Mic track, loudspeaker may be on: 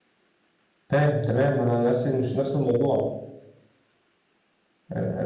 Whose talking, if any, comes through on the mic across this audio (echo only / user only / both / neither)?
user only